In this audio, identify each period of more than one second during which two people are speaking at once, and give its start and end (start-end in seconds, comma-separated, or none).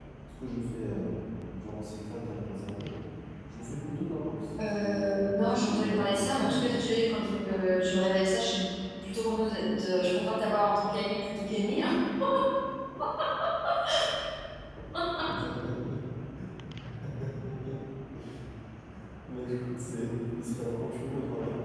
4.7-6.7